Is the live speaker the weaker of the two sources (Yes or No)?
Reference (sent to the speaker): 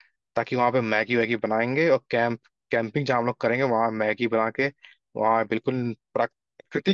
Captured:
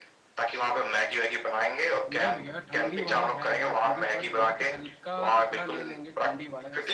Yes